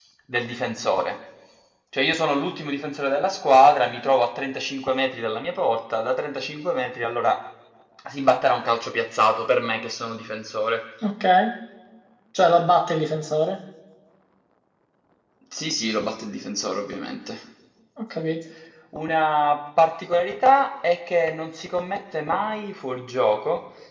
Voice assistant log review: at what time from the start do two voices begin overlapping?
none

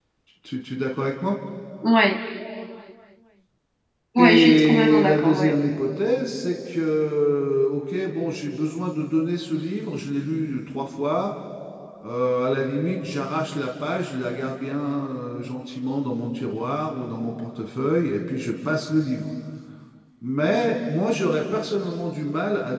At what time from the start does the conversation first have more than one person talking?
4.2 s

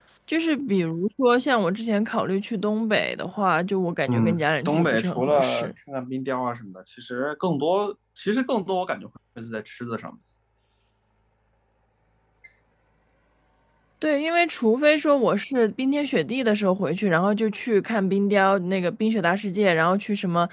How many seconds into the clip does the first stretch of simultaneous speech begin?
4.1 s

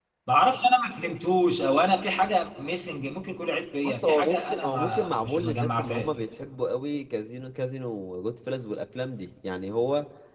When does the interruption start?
3.8 s

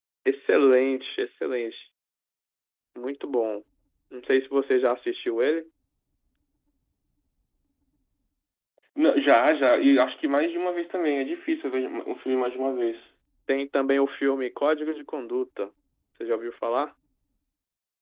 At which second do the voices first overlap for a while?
none

